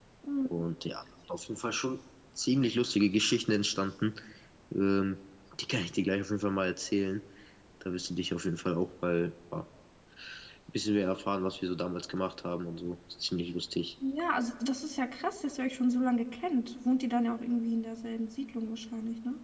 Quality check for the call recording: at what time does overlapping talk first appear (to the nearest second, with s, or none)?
none